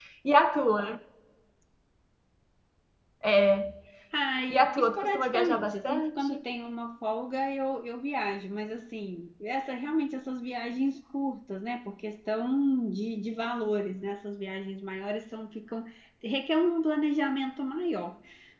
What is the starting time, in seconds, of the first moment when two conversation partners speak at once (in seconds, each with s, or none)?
4.5 s